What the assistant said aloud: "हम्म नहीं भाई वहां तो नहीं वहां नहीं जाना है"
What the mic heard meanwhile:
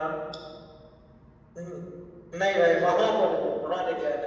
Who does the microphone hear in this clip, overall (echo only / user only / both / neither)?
echo only